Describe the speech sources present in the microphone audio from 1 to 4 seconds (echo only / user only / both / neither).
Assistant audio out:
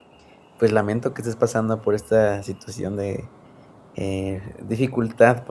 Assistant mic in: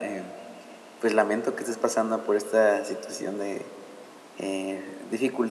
echo only